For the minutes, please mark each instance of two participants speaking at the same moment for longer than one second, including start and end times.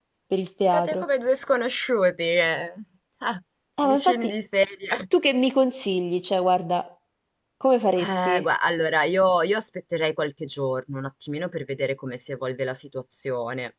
none

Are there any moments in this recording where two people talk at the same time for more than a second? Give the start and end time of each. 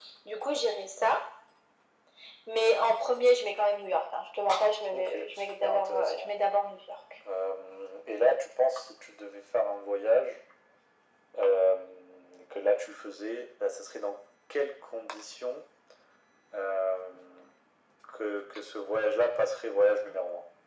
4.9-6.3

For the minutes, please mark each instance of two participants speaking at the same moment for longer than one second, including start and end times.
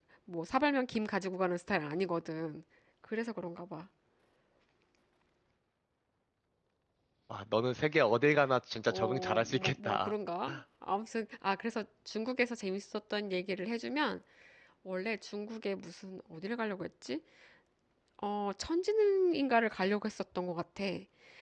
8.9-10.1

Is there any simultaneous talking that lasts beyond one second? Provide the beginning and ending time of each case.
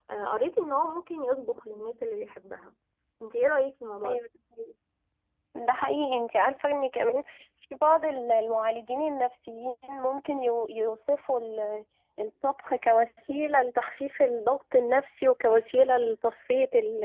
none

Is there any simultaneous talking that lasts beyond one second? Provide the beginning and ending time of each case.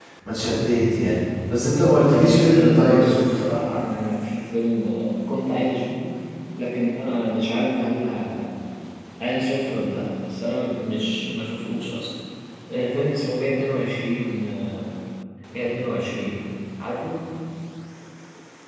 2.1-3.5

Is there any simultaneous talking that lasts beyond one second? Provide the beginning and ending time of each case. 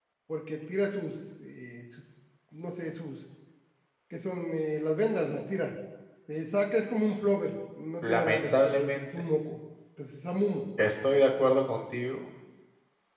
8.0-9.2

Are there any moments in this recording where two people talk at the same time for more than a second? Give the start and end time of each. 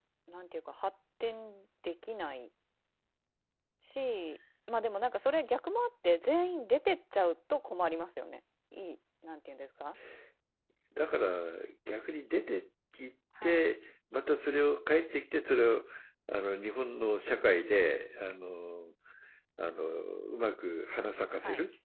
none

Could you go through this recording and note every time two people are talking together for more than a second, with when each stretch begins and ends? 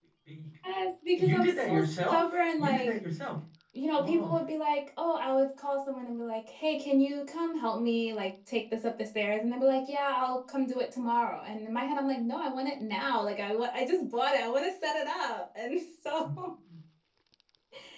1.2-3.0

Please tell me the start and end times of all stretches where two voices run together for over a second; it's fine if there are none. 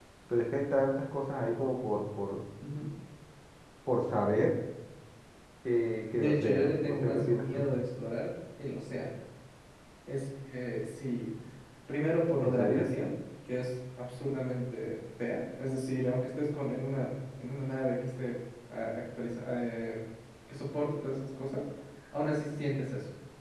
6.1-7.7

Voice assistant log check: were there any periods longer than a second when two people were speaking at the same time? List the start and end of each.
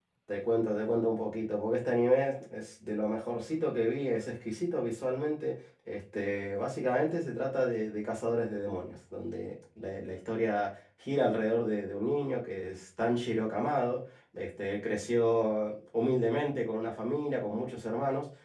none

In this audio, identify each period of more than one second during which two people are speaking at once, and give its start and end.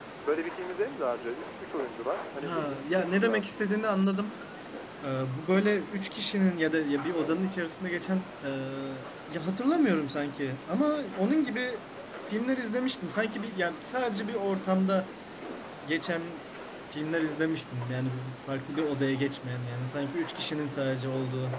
2.4-3.8

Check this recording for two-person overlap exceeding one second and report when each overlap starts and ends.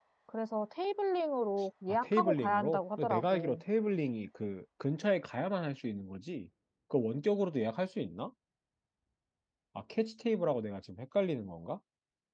2.0-3.6

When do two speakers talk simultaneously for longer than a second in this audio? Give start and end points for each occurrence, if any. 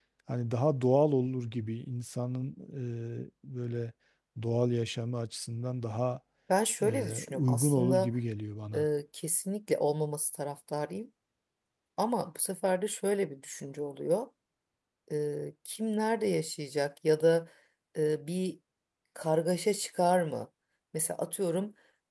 6.8-8.1

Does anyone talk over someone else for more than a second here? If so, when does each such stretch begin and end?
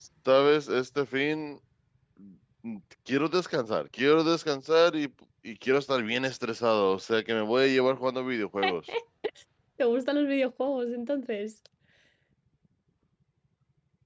none

